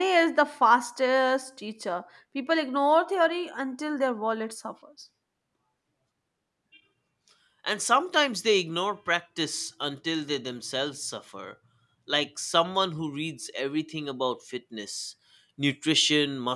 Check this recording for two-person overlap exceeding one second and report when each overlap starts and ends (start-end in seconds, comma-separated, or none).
none